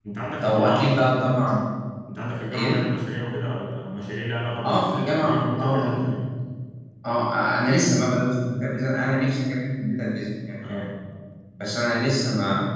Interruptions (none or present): present